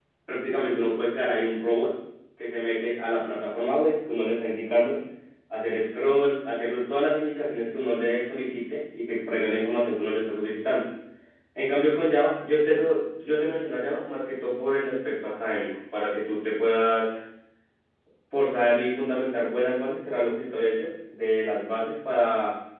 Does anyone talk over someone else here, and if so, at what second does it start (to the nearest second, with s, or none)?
none